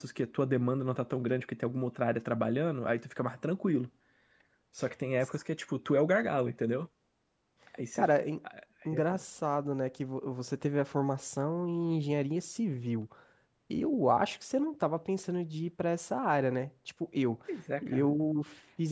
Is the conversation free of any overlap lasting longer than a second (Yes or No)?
Yes